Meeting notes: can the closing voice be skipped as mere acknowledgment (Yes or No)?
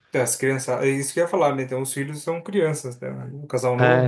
No